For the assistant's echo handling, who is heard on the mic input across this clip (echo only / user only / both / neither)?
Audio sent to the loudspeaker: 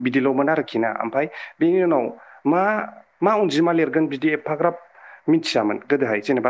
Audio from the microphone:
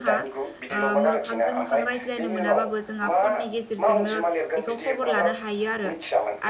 both